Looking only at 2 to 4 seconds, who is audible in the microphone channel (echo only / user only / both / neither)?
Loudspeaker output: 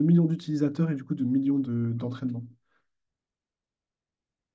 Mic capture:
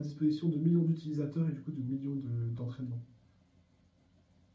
echo only